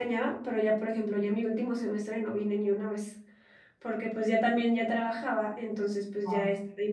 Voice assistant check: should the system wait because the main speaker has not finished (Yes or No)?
Yes